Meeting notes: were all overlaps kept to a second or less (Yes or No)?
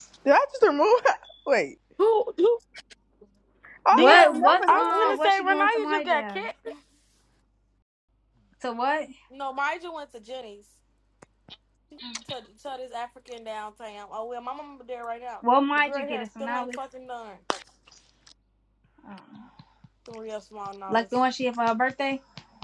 No